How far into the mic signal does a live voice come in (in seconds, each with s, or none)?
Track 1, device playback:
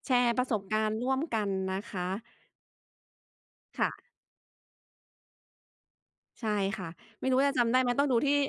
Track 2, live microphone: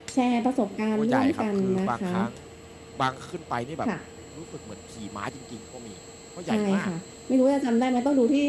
0.9 s